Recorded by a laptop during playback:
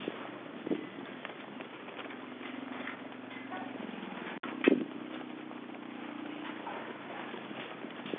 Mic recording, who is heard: neither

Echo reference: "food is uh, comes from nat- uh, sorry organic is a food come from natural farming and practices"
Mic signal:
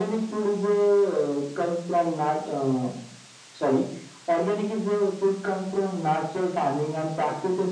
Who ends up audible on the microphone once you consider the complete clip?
echo only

